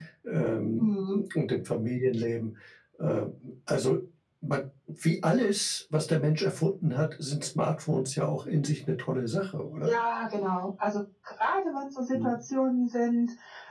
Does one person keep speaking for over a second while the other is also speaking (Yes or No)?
No